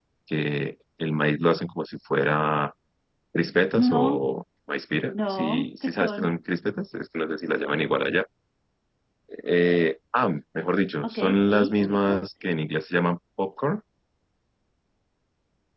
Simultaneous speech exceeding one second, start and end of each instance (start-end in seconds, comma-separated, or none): 5.1-6.3, 11.0-12.6